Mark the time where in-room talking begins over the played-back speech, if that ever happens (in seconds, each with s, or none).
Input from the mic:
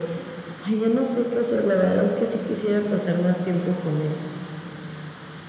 none